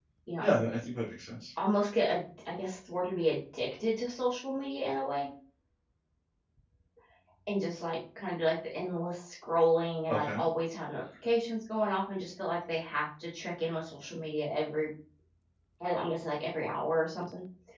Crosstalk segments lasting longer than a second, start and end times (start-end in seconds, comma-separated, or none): none